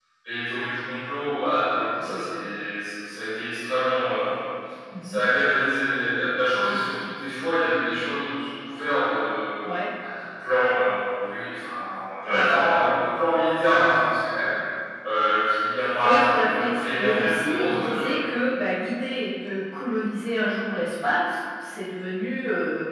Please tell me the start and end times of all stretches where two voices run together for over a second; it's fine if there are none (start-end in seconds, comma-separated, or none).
16.0-18.1